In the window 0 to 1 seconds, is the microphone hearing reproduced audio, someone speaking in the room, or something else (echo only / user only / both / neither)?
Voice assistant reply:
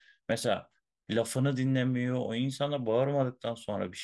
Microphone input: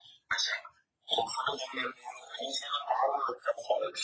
echo only